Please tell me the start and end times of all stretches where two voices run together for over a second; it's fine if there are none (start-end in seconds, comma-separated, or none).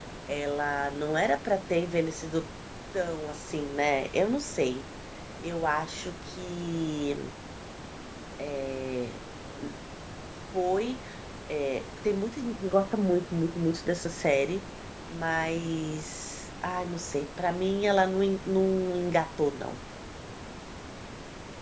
none